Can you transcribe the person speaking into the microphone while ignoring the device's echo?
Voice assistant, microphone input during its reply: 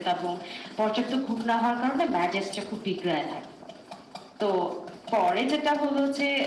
none

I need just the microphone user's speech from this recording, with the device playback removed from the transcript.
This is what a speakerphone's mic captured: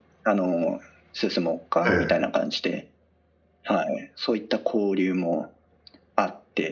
ええ。

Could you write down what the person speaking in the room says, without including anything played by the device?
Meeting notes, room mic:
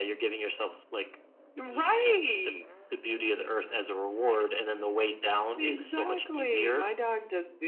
none

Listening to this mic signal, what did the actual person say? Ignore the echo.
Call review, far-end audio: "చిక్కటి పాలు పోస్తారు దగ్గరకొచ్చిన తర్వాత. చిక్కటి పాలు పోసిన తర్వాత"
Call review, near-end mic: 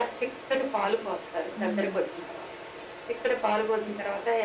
హ్మ్.

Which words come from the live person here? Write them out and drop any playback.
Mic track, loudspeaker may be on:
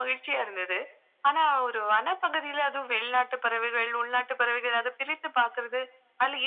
none

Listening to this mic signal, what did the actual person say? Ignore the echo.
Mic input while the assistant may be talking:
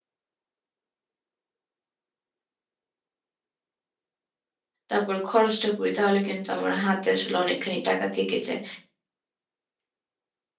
তারপর খরচটা করি তাহলে কিন্তু আমার হাতে আসলে অনেকখানি টাকা থেকে যায়

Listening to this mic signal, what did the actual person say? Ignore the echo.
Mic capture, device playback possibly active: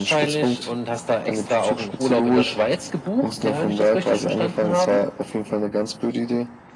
none

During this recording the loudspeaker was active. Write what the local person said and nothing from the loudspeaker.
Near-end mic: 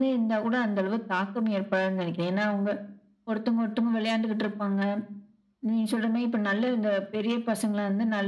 none

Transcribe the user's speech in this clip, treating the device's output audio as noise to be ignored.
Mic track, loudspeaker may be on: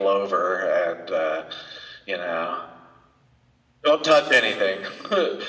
none

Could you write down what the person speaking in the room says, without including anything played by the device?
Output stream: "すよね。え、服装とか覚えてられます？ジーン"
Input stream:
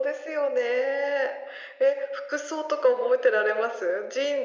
none

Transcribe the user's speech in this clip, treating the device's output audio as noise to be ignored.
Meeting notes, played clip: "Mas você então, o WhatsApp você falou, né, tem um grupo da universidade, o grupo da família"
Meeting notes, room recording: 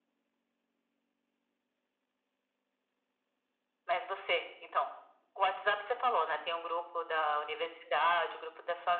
none

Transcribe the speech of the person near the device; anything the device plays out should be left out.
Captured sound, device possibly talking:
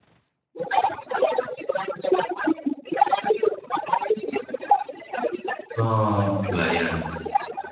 Oh kebayang.

